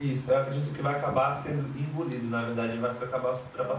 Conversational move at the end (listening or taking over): listening